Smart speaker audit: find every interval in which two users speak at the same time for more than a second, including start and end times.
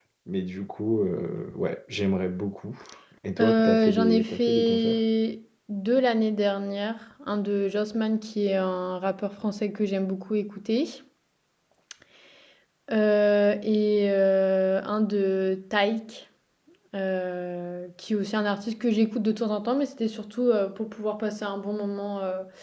3.4-5.0

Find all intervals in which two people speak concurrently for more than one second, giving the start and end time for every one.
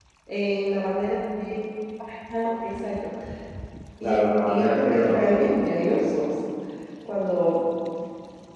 4.0-5.5

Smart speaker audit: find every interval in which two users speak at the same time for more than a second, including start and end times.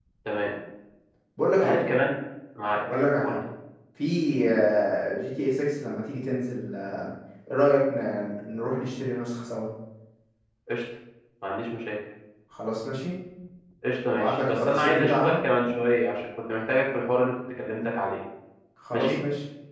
14.1-15.3

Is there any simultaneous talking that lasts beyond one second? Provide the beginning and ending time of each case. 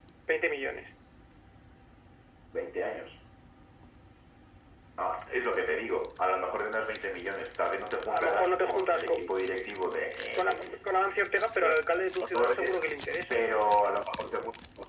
8.1-9.3

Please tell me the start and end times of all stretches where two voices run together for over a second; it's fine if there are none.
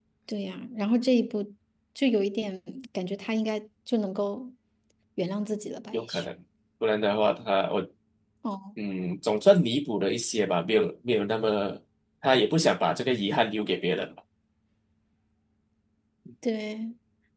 none

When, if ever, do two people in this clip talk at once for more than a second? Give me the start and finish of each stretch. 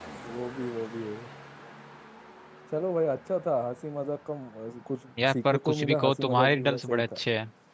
5.3-7.2

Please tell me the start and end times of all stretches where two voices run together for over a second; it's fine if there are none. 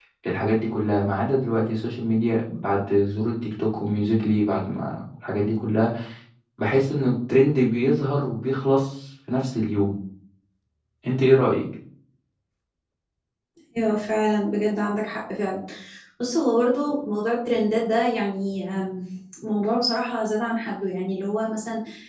none

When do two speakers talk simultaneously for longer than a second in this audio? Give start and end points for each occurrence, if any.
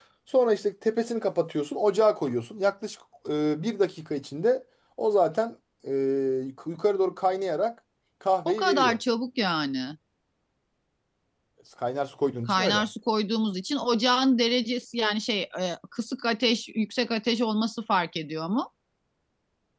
none

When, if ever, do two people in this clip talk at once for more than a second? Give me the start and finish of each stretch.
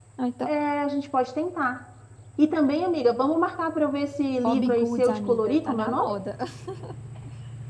4.4-6.1

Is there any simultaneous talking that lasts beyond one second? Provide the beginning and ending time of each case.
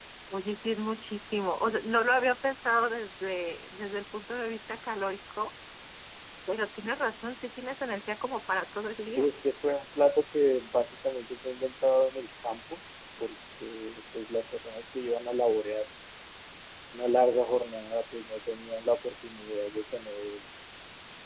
none

